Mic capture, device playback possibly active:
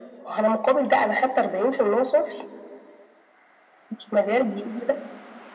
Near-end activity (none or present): none